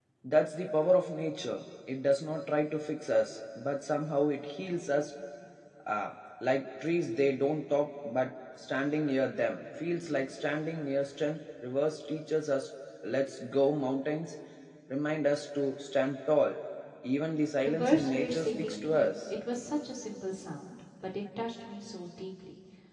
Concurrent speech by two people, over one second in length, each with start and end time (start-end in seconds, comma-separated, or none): 17.6-19.1